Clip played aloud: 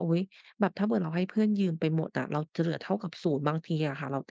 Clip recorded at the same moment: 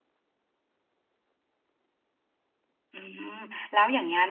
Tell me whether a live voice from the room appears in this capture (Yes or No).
Yes